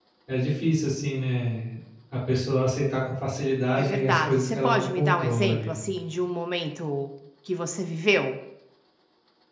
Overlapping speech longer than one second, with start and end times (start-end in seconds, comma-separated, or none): 3.8-5.8